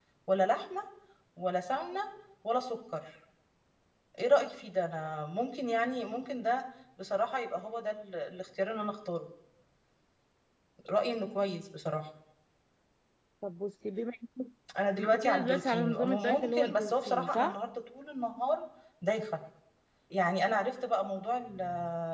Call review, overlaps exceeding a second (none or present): present